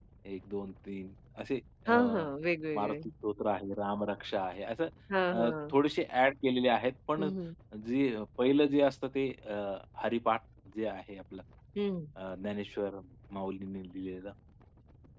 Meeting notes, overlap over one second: none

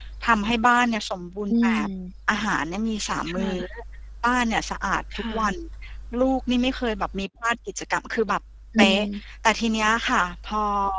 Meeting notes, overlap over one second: none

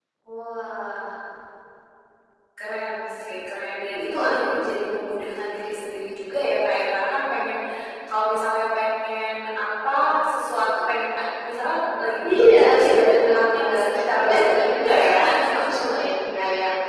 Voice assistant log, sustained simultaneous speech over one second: present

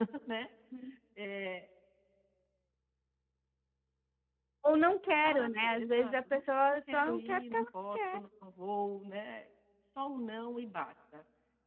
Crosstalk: present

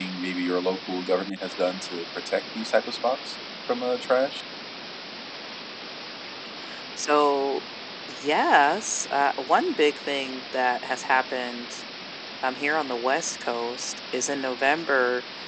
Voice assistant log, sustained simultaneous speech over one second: none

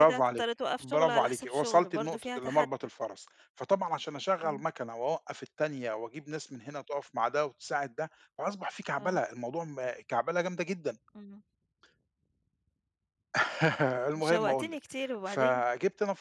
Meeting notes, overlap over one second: present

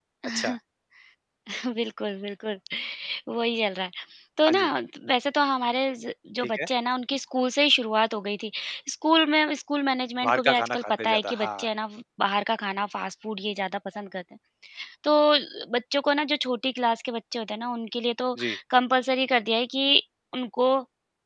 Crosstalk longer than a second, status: present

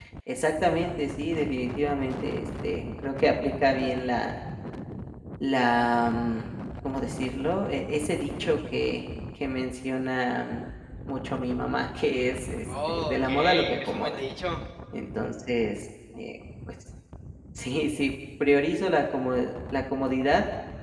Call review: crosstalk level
present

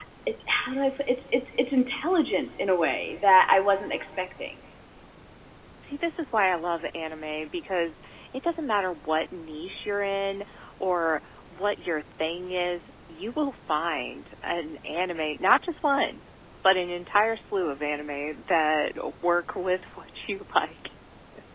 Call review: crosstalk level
none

